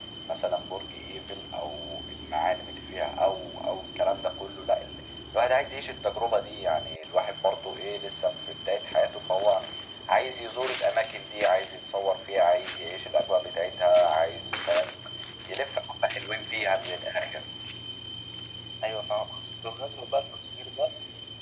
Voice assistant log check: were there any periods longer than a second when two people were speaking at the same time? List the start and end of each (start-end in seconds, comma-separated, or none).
none